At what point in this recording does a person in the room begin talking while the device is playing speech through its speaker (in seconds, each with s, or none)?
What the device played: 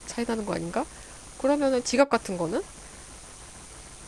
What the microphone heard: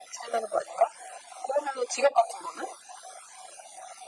none